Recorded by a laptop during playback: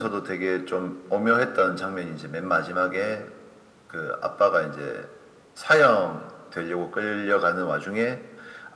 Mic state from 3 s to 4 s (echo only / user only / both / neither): echo only